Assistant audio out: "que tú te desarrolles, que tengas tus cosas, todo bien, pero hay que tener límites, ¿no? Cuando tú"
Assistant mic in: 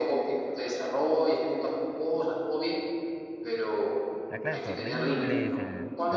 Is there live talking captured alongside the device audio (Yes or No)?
Yes